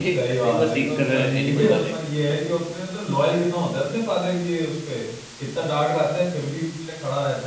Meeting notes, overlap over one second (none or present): present